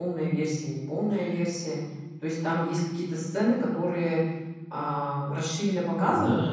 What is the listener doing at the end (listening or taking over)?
taking over